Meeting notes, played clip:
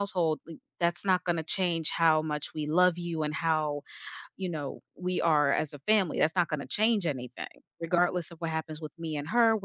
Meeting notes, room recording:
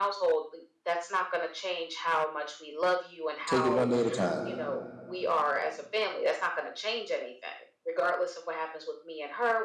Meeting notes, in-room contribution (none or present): present